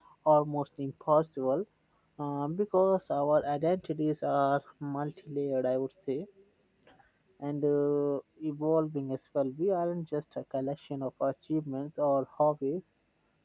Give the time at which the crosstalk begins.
none

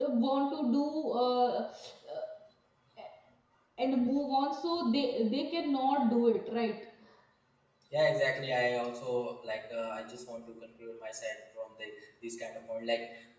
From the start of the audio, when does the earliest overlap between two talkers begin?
none

